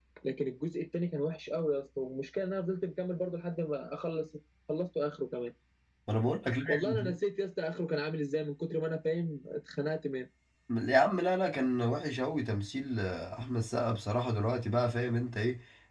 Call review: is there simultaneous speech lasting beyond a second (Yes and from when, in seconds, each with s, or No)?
No